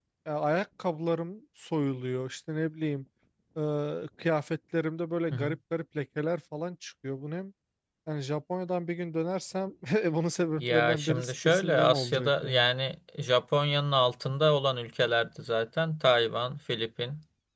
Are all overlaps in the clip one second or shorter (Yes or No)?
No